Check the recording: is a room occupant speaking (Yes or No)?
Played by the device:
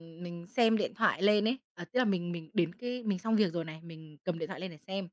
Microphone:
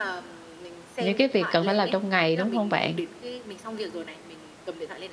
Yes